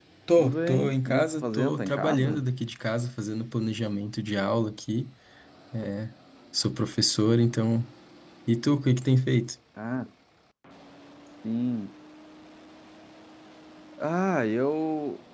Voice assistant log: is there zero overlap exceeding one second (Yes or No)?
No